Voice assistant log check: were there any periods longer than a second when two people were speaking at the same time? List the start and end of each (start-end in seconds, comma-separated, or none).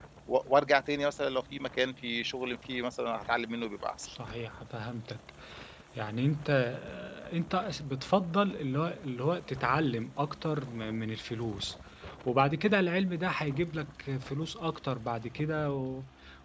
none